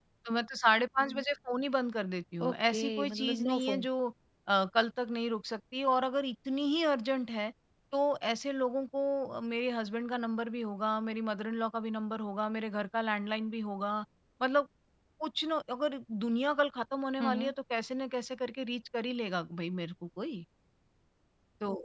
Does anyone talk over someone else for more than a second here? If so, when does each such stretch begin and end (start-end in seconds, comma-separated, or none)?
2.5-3.9